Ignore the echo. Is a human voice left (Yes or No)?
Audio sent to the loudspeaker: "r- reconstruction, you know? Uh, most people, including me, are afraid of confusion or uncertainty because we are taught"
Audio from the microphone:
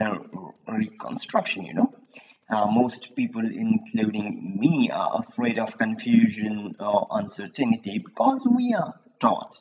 No